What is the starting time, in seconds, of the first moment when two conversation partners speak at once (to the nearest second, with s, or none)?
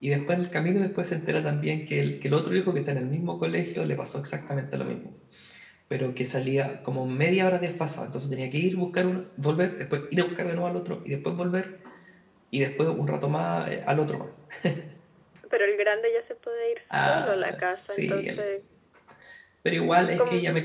17 s